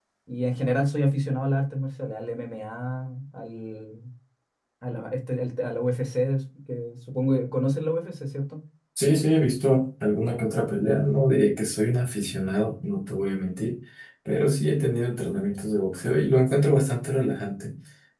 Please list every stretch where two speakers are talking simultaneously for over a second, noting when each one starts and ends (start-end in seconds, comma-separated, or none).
none